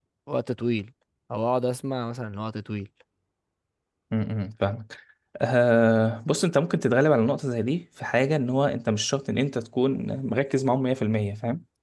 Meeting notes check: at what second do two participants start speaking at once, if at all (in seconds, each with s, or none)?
none